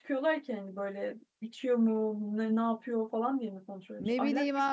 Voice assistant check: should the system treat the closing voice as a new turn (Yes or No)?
Yes